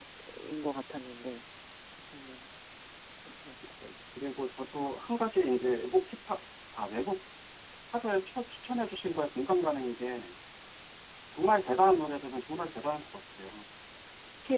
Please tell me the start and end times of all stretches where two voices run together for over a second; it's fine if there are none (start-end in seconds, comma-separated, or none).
none